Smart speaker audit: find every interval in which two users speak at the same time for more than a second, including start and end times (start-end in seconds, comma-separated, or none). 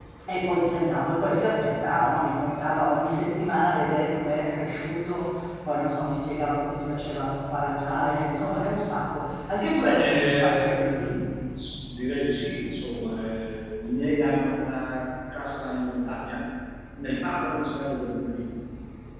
9.8-11.1